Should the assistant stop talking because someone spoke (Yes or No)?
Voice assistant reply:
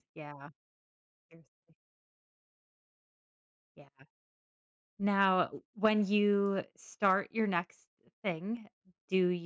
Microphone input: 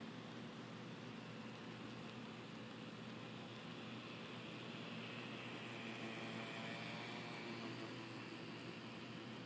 No